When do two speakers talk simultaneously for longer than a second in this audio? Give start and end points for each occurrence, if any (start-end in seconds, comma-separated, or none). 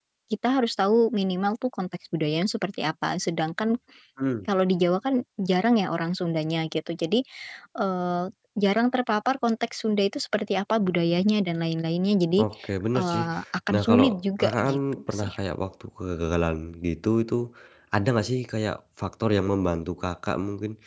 13.7-15.3